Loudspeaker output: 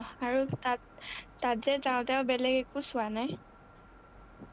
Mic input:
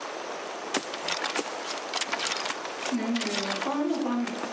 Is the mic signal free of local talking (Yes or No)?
No